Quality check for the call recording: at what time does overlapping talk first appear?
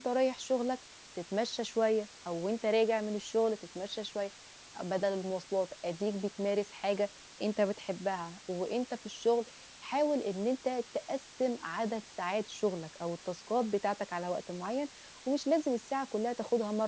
none

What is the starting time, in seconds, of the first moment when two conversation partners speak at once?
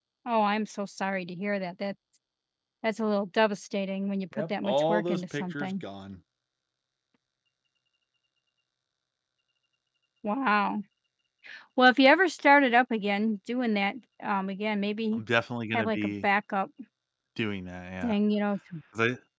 4 s

